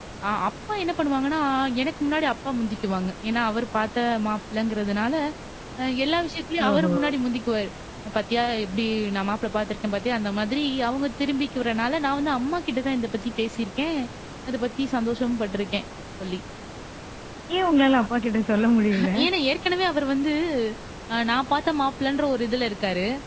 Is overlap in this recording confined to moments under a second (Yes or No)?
Yes